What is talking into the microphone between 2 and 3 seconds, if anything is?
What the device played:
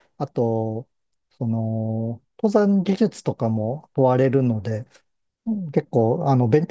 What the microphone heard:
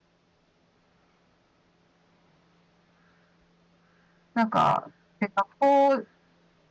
neither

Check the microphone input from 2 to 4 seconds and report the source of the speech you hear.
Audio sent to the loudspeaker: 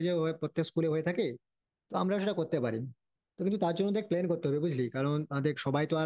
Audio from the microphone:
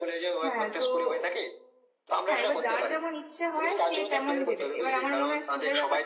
both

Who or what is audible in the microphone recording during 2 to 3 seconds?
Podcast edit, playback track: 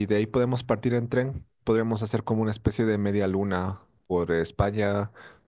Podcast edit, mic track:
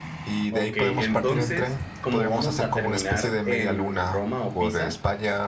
both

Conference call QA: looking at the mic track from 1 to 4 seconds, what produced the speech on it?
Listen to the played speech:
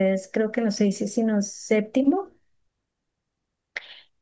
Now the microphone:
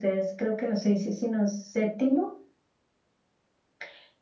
echo only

